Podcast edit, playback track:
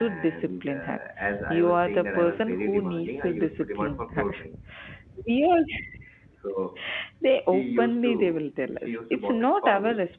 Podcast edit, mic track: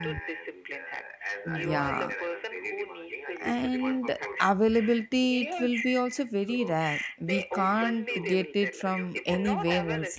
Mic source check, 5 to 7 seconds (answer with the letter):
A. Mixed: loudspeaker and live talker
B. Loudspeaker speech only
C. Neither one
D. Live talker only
A